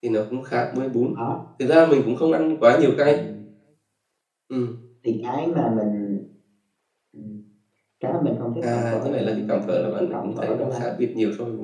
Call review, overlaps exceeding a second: present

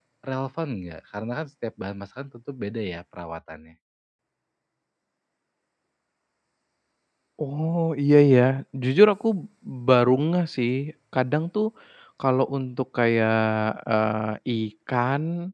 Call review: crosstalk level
none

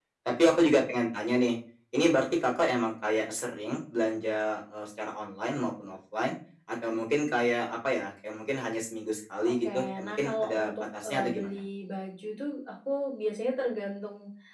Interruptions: present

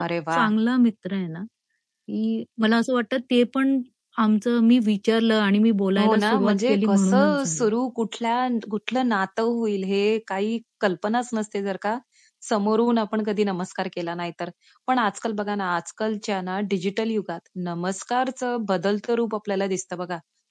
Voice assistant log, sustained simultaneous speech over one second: present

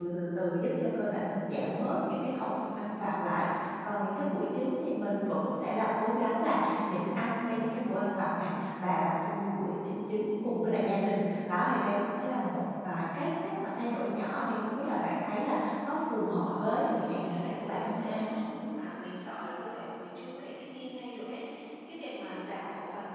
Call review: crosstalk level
present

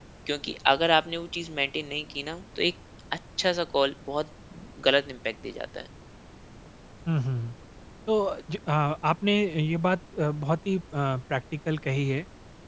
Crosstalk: none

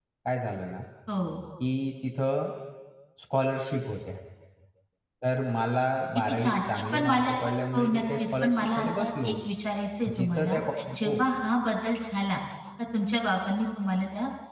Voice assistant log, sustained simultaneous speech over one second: present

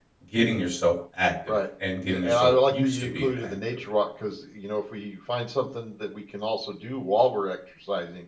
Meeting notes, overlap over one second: present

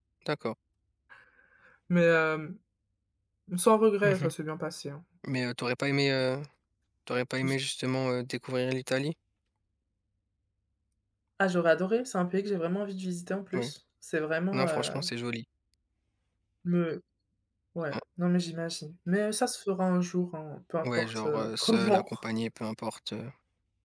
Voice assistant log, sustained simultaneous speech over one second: present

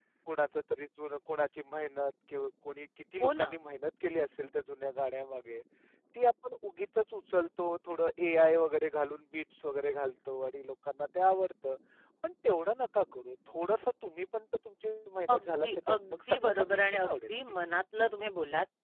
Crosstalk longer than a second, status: present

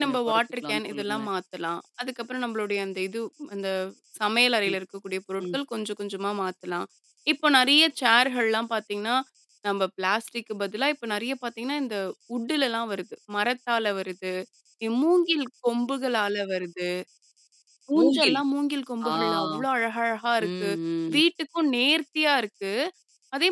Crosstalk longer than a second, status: present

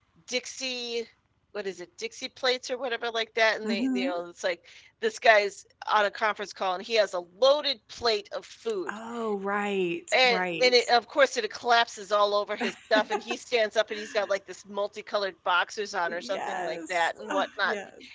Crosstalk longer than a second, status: present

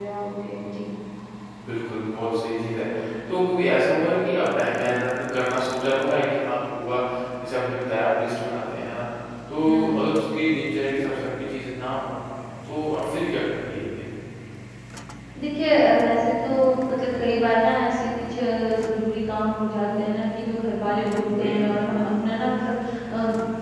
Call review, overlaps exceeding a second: present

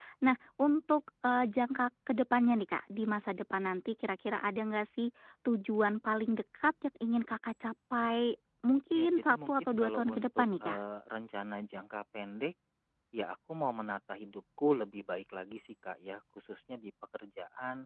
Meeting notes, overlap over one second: present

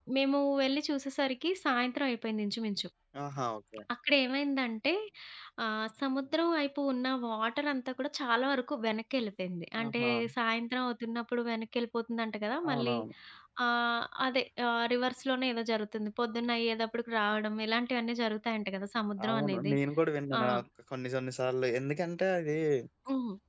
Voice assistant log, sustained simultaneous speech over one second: none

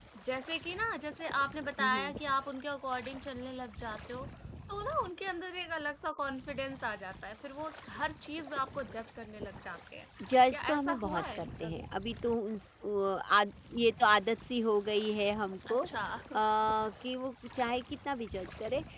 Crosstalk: present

